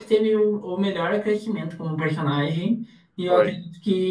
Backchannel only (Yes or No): Yes